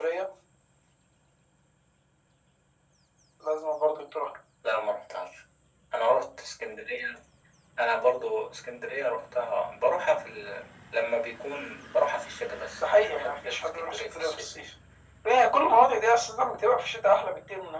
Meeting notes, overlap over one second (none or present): present